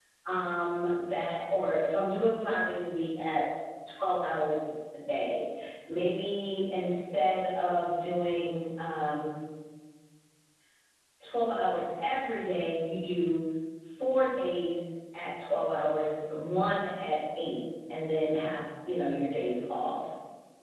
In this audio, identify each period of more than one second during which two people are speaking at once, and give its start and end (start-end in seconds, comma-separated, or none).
none